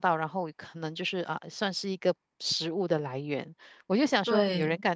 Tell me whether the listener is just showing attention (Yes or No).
Yes